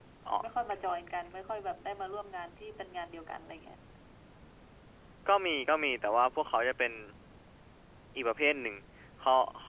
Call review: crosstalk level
none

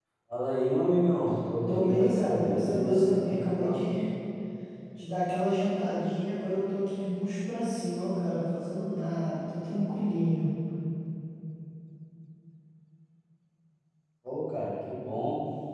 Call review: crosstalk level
present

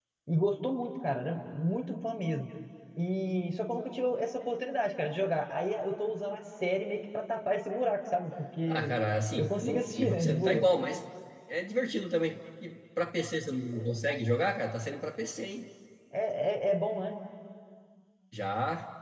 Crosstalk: present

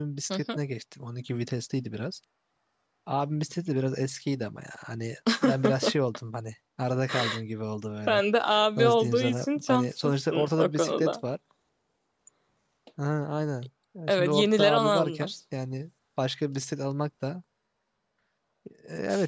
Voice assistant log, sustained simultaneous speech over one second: present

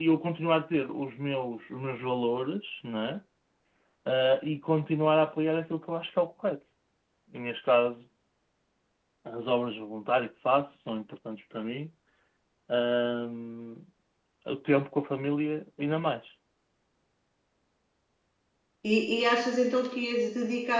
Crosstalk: none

